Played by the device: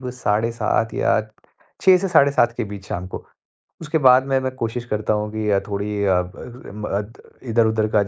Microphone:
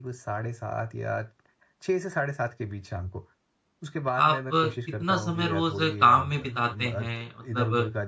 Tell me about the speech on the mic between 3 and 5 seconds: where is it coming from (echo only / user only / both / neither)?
both